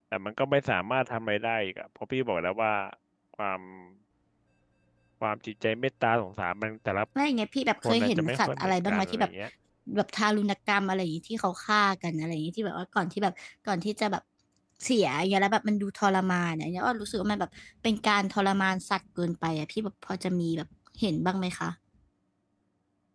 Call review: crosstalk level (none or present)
present